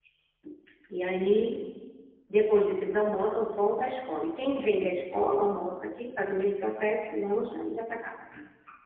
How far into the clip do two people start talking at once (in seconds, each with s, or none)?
none